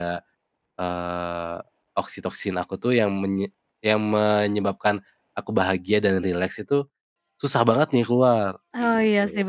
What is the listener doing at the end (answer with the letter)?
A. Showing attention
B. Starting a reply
B